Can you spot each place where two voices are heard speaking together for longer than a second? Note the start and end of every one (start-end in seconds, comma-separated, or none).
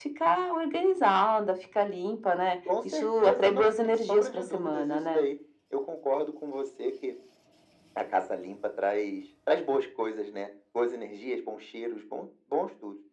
2.8-5.2